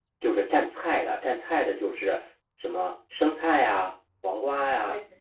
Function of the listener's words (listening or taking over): listening